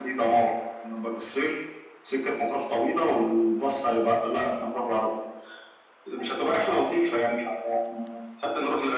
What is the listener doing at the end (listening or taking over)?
taking over